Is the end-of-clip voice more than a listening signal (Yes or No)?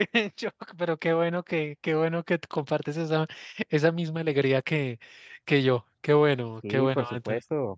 Yes